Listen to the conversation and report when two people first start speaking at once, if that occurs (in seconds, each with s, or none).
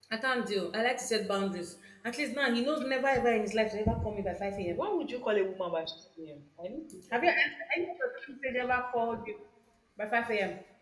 none